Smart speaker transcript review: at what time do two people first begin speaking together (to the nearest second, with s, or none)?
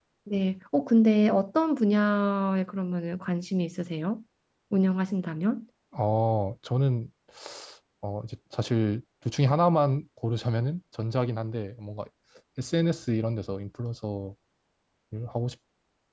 none